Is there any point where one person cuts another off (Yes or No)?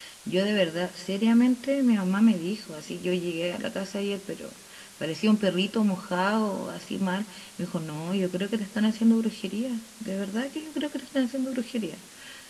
No